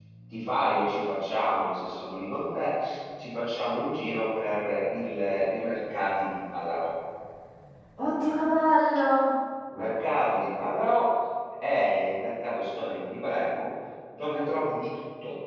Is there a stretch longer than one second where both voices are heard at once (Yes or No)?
No